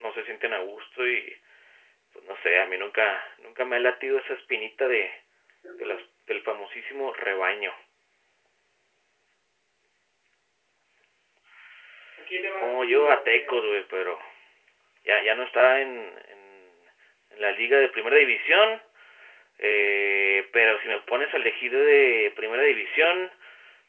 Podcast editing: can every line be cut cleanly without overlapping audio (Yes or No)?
No